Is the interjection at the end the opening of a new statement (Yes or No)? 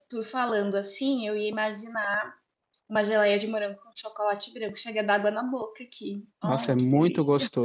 Yes